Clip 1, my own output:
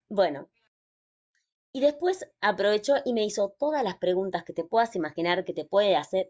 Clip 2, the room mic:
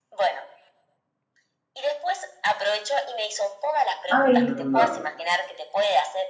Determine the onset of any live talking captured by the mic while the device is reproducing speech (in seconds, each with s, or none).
4.1 s